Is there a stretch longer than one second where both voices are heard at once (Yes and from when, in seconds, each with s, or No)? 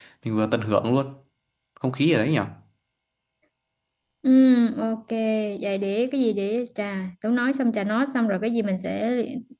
No